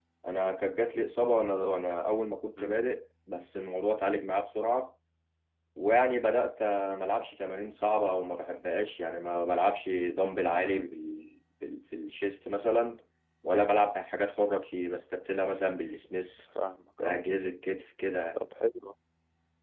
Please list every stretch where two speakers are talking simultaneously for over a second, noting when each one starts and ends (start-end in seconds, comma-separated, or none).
none